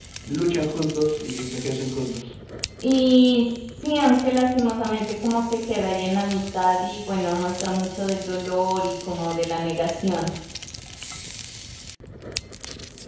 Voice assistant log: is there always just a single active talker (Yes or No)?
Yes